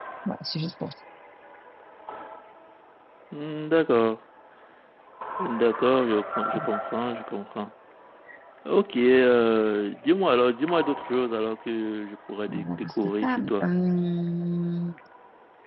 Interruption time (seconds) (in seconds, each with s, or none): 12.5 s